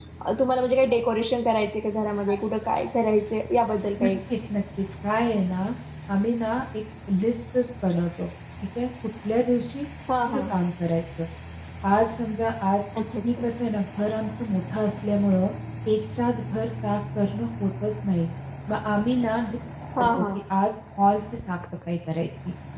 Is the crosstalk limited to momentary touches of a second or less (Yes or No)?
Yes